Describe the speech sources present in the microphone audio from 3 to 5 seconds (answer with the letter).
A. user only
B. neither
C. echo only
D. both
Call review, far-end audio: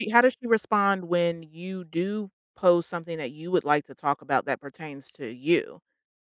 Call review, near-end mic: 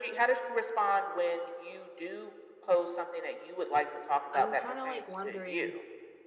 D